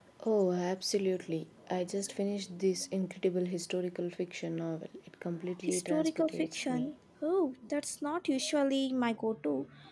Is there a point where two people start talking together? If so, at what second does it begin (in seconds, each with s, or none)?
5.6 s